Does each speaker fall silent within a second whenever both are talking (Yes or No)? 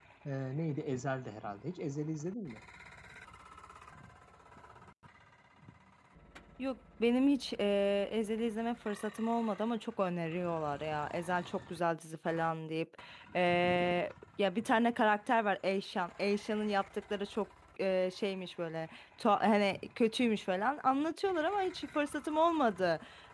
Yes